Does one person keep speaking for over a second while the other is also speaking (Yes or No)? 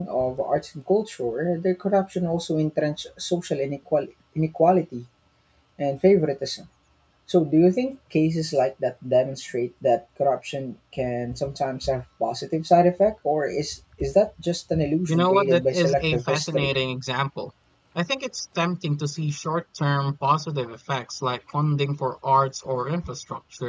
Yes